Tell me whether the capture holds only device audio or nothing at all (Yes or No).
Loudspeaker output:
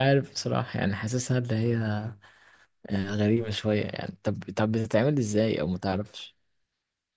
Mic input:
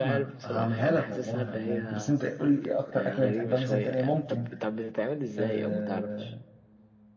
No